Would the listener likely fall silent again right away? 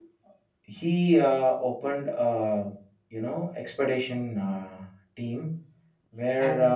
Yes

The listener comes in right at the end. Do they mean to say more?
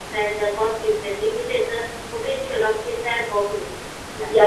Yes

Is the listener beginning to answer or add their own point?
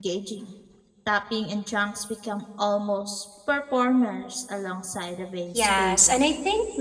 Yes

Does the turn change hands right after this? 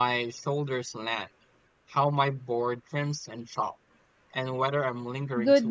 Yes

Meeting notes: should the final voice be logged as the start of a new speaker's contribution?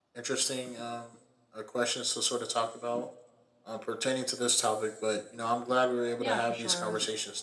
Yes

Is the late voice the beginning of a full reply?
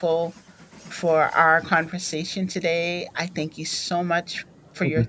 No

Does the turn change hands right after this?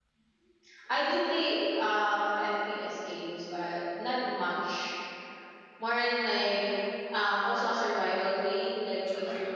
No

